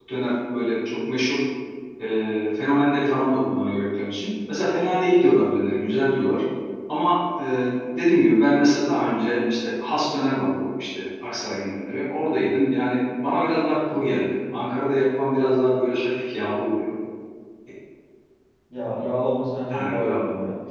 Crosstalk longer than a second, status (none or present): none